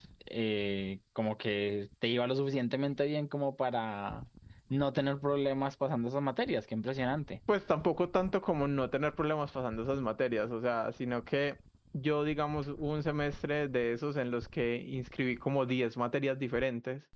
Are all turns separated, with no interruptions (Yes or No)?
Yes